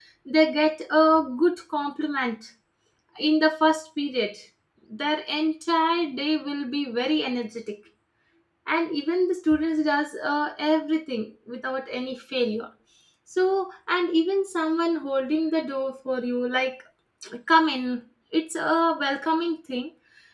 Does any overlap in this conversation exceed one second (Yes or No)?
No